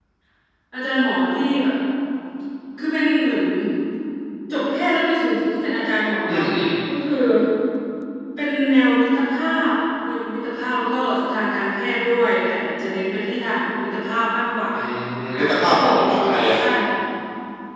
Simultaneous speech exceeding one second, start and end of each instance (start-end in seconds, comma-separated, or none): 15.4-16.6